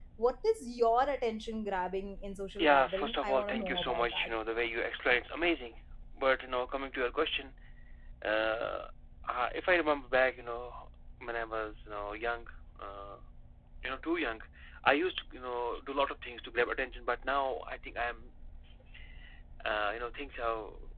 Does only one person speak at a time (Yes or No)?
No